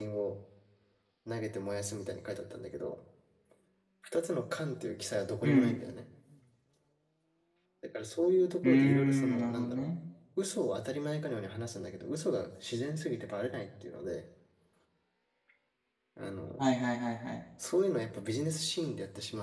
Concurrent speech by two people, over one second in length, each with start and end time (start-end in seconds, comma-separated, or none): 8.6-9.9